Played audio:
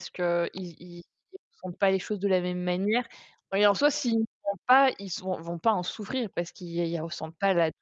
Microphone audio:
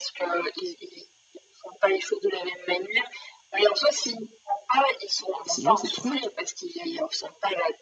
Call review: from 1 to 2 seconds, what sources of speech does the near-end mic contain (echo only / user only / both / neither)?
echo only